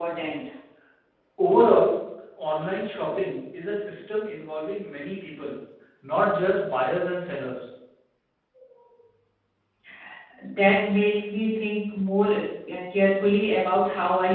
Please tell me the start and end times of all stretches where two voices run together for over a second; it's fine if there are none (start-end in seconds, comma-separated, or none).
none